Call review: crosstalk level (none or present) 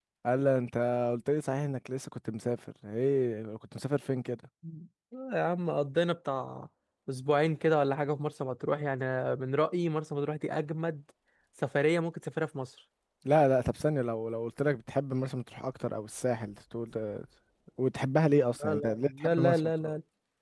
present